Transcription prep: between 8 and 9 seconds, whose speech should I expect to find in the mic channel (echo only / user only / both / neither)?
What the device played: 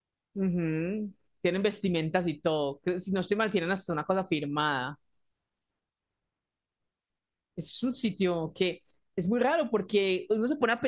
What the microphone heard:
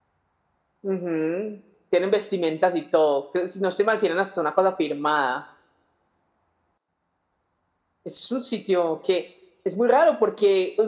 echo only